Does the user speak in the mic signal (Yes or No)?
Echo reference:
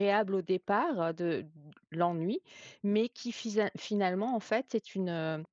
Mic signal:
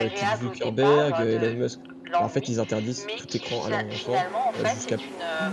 Yes